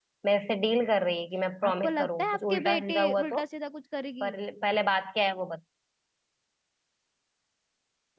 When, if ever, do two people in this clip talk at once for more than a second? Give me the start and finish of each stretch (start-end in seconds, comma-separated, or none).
1.6-3.4